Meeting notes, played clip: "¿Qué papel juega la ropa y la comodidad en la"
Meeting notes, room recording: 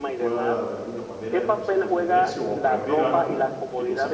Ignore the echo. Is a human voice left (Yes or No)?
Yes